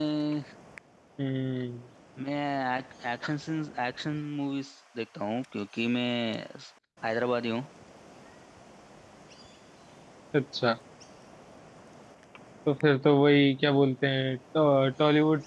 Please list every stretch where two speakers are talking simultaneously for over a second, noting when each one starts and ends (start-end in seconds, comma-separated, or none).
none